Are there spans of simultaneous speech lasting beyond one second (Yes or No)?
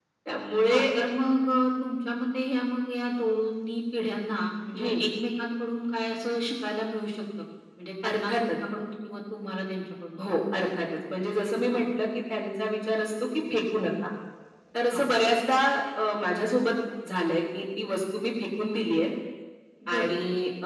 No